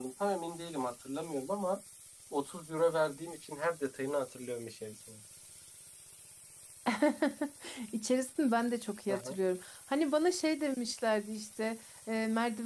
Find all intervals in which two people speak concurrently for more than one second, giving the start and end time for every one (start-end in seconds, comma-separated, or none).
none